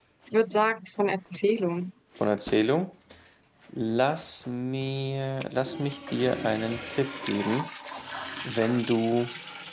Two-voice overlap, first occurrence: none

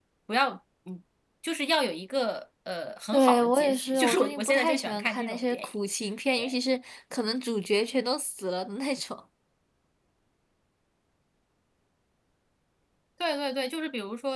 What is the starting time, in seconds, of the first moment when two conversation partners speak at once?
3.1 s

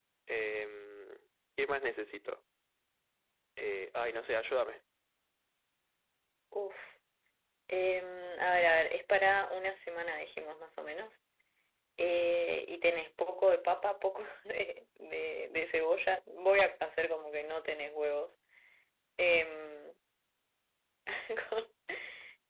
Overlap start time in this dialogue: none

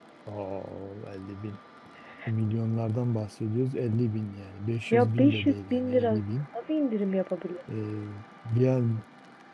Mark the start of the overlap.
4.9 s

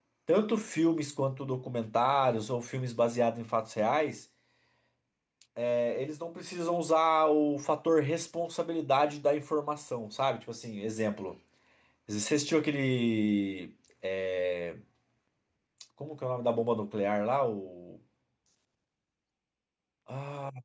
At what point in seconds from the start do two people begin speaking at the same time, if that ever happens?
none

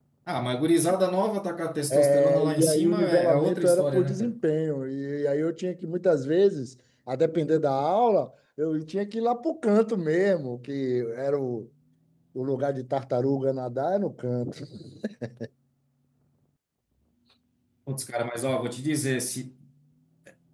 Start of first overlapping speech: 1.9 s

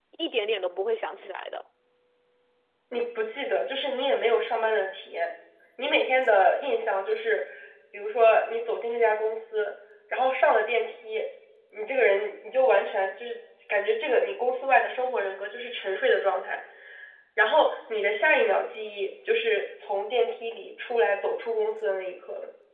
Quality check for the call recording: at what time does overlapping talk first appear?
none

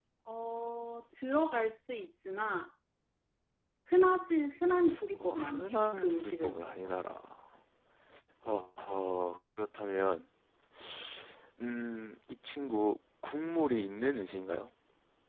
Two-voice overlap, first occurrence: 5.2 s

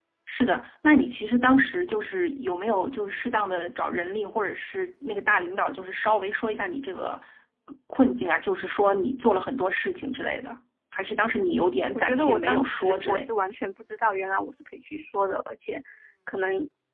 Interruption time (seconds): 12.0 s

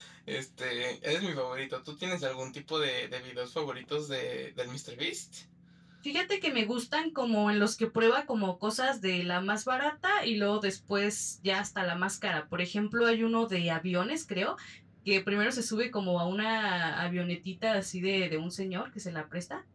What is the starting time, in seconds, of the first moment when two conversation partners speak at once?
none

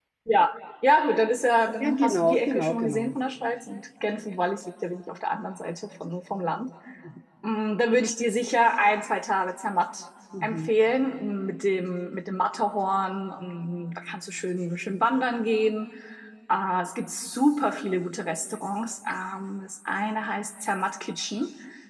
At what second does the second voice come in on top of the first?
1.8 s

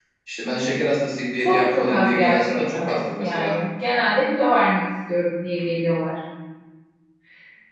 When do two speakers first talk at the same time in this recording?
1.4 s

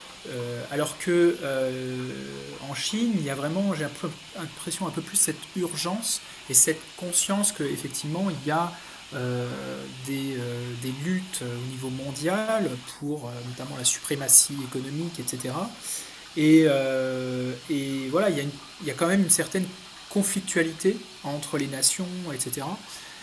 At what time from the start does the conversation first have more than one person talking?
none

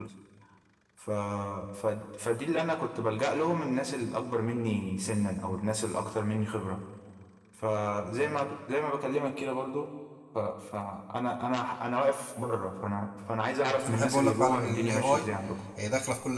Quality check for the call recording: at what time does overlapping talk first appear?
13.8 s

